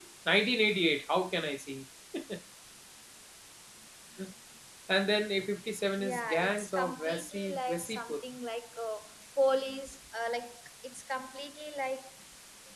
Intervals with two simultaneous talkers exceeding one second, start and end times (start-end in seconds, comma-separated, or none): 6.0-8.2